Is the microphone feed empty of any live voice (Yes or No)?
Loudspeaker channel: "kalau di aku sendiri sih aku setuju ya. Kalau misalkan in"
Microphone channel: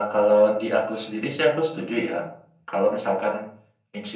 Yes